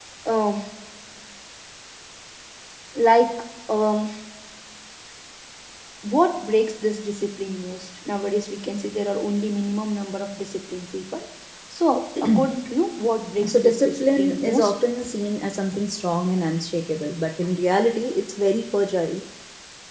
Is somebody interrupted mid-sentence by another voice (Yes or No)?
Yes